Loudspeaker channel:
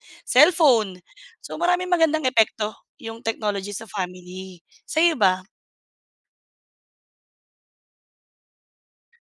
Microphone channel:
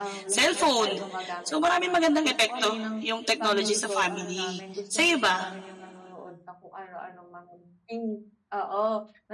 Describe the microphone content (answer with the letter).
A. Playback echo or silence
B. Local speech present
B